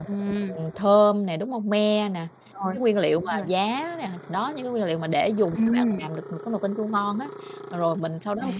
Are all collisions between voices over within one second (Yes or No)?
Yes